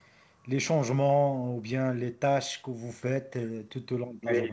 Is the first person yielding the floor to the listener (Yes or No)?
Yes